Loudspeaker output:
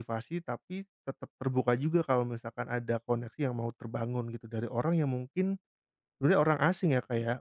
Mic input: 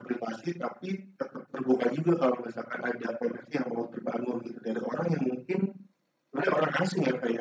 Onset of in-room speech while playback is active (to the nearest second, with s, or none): none